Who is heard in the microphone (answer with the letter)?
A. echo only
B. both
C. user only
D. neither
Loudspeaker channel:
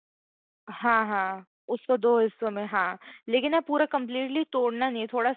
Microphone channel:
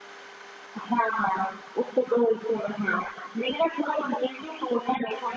A